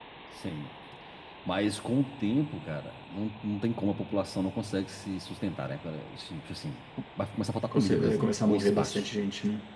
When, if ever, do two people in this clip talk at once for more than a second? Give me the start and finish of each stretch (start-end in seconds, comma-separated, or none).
7.7-9.1